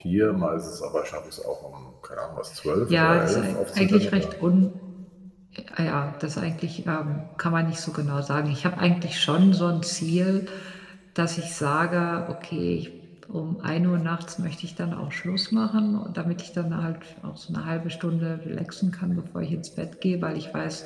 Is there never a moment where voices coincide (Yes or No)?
No